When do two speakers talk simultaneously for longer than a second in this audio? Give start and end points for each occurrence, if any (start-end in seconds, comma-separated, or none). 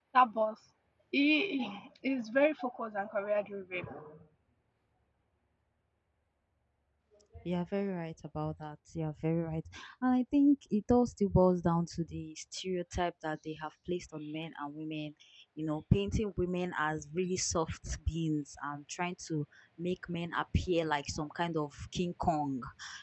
none